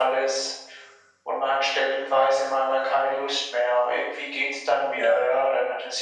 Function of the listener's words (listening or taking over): listening